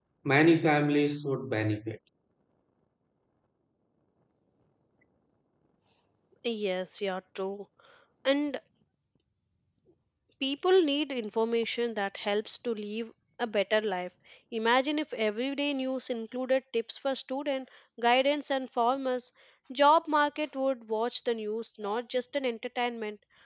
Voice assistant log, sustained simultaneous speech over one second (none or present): none